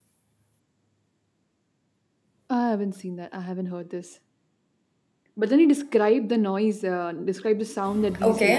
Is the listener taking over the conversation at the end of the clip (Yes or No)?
Yes